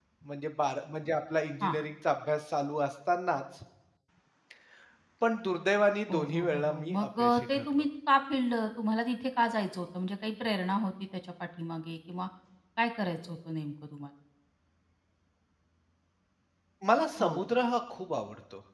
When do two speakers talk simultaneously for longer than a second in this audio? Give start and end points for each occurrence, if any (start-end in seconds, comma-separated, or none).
6.1-7.8